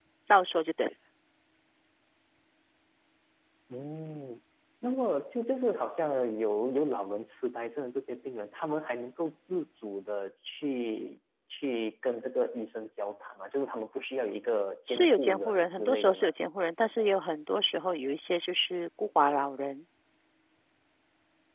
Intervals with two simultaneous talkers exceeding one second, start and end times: 14.9-16.3

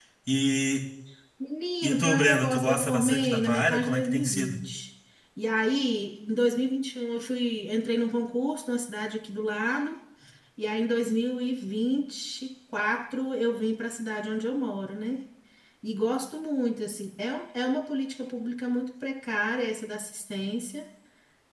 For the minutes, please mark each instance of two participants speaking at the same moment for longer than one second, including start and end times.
1.8-4.6

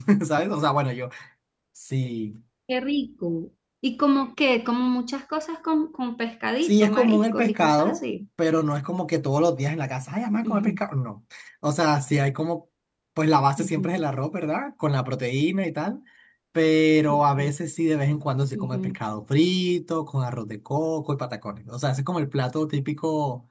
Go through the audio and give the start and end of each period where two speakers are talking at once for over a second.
6.6-8.0

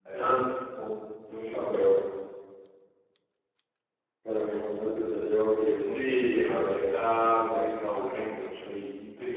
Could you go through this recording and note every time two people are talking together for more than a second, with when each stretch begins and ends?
5.8-8.1

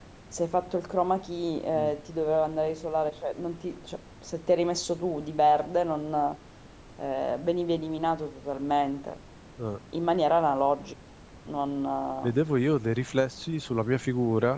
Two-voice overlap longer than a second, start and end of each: none

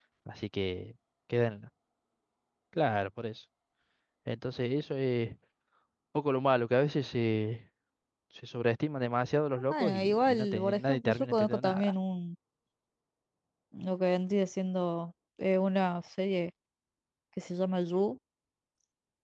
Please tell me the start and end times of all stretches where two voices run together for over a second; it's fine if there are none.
9.7-11.9

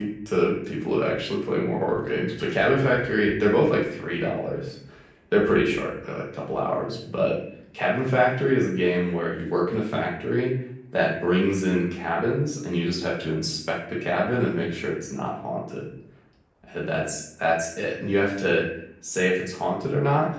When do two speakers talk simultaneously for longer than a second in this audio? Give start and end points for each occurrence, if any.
none

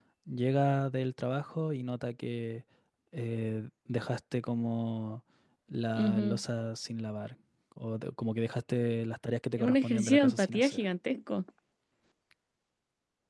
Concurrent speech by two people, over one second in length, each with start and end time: 9.6-10.8

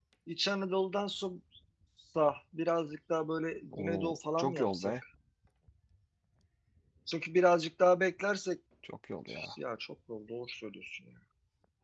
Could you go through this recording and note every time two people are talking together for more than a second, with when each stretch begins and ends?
3.7-4.9

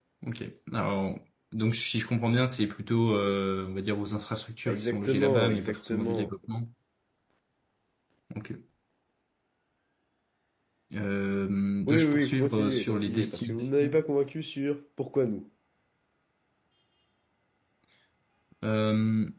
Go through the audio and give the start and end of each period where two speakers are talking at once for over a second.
4.6-6.3, 11.9-14.0

